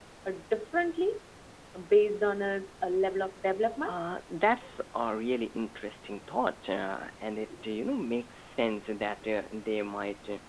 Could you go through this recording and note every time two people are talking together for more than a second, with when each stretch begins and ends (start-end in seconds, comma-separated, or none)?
none